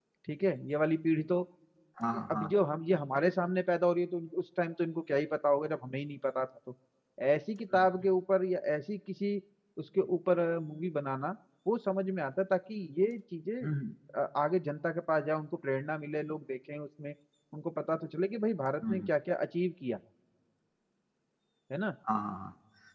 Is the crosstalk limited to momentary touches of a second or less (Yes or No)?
Yes